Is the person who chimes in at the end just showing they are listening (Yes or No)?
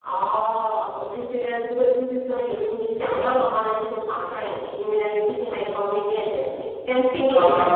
No